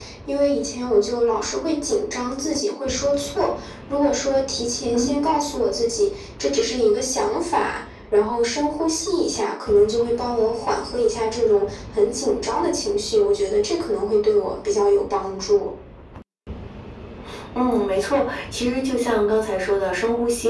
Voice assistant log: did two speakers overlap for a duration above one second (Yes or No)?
No